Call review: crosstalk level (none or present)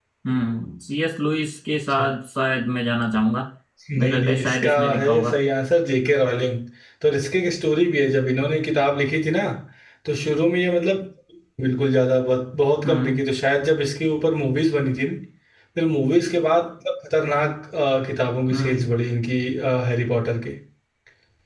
present